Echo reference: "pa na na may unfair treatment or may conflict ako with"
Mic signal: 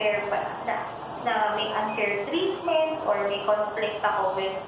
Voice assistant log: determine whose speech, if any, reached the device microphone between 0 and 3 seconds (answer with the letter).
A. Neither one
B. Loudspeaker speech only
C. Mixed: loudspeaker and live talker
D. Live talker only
B